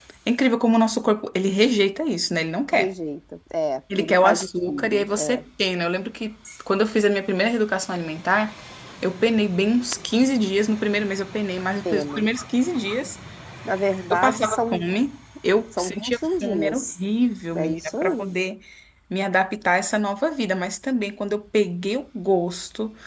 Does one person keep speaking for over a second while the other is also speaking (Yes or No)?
Yes